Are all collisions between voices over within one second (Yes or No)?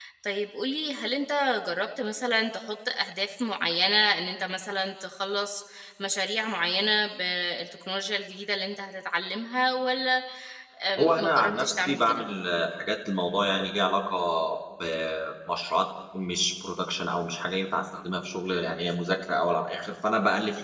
No